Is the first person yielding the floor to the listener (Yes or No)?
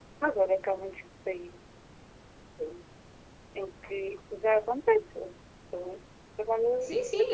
Yes